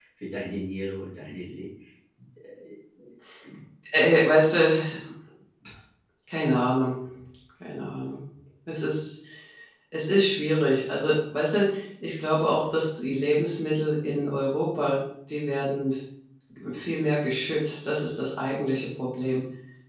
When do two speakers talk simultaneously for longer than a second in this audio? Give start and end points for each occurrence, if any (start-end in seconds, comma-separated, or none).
none